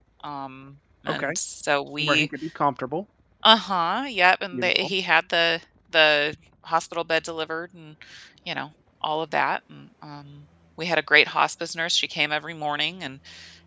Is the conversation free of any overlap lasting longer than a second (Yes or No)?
Yes